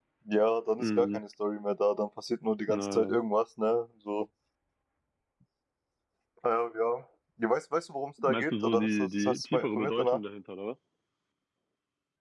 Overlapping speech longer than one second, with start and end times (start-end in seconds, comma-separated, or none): 8.2-10.2